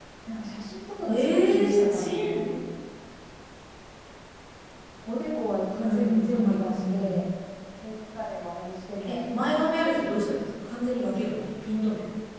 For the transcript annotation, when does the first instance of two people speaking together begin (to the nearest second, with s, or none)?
1 s